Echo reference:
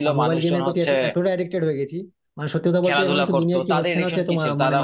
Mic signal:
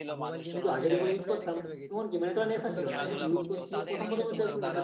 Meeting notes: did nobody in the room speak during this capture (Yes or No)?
No